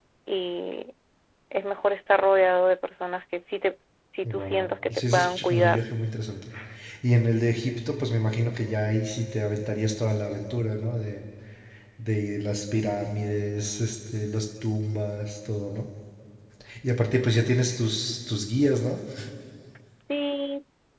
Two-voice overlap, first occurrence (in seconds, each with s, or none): 4.2 s